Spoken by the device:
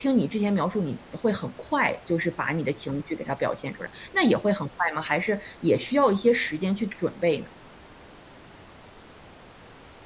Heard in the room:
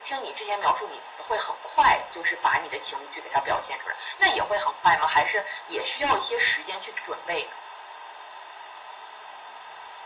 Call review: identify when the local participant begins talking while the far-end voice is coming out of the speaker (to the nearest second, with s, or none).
none